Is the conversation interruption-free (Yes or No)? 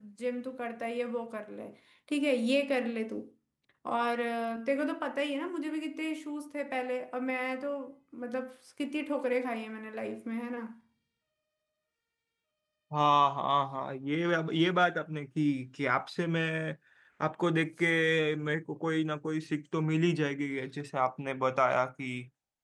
Yes